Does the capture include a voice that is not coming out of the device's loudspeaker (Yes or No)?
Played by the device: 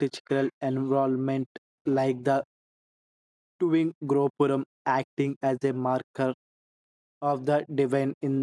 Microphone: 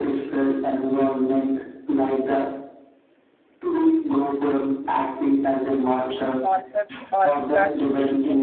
Yes